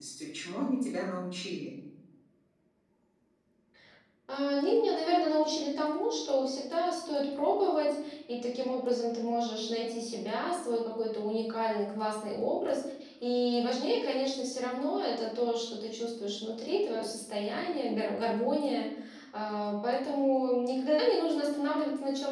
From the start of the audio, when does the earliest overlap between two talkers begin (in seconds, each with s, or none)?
none